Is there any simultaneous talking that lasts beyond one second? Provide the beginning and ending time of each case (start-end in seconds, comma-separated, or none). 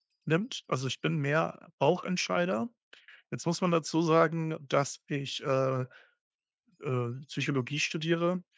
none